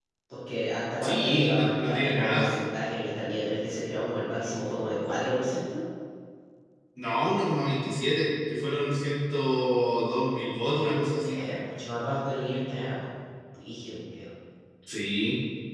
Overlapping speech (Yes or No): Yes